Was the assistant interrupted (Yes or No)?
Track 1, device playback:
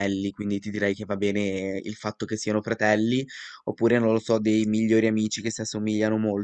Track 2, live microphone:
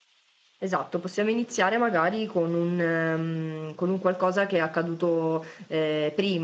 Yes